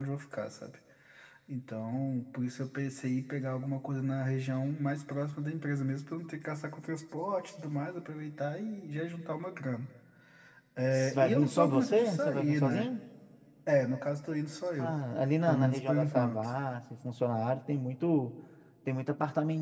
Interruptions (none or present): present